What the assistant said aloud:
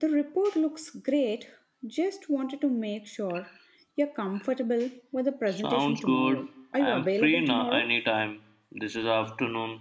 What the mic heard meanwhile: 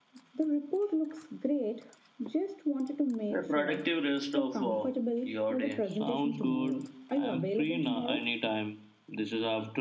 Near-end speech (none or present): present